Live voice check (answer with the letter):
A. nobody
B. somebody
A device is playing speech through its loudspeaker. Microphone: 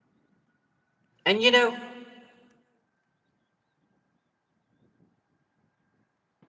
B